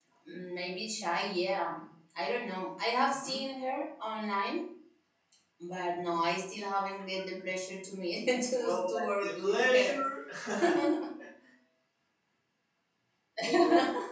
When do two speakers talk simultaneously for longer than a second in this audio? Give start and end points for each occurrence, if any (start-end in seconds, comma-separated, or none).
8.6-10.0